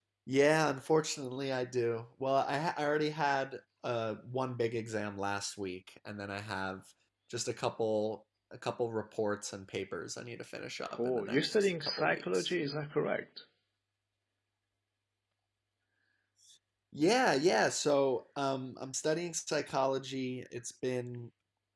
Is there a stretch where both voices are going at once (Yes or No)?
Yes